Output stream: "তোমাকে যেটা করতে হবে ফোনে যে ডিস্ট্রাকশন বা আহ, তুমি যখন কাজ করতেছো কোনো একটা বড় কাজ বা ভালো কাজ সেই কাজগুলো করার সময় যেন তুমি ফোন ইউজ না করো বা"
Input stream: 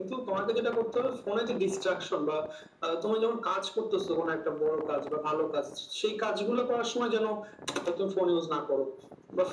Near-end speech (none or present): none